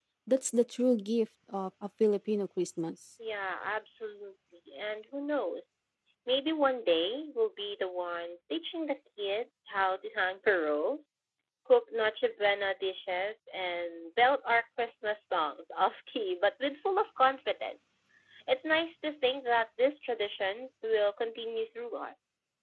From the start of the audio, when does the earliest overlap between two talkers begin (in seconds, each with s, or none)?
none